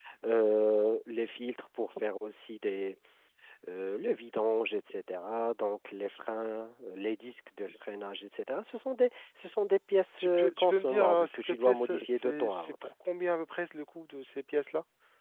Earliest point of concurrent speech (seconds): 10 s

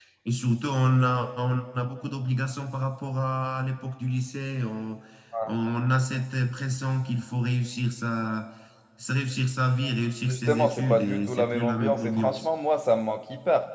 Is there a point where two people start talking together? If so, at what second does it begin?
10 s

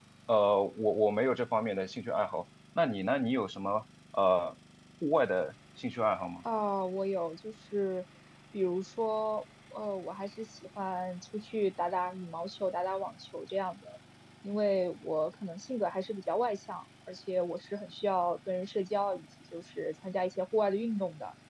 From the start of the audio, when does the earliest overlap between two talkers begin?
none

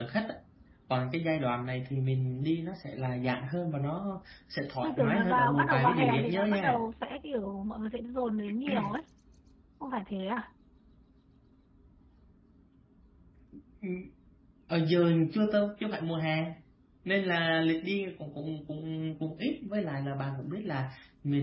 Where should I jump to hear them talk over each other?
5 s

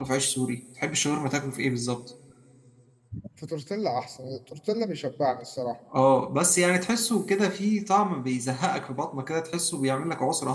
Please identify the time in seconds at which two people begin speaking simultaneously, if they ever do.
none

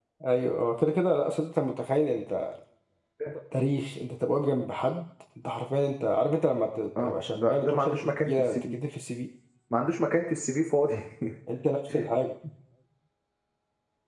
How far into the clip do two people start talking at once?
7 s

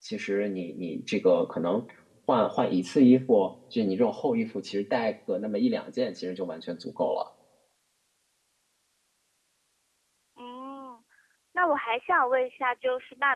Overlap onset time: none

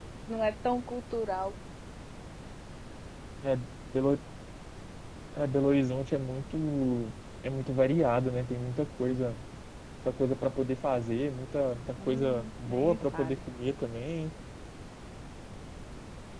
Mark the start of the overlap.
12 s

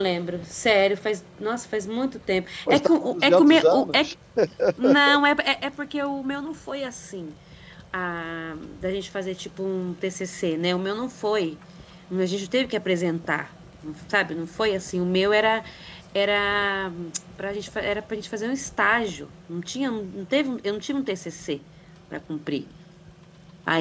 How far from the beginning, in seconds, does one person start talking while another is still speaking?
3 s

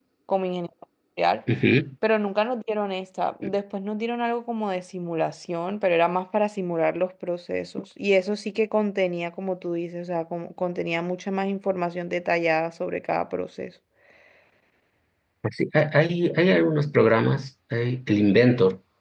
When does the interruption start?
none

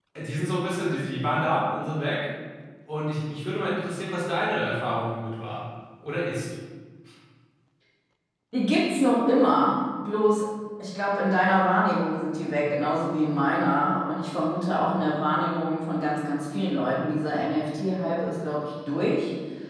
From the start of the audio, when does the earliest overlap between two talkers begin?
none

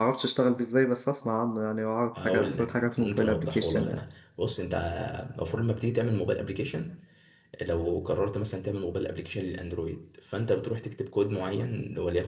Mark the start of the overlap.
2 s

